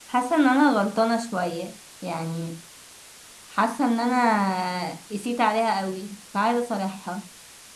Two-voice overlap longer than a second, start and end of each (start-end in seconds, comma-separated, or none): none